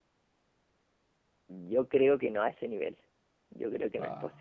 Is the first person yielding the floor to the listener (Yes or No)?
No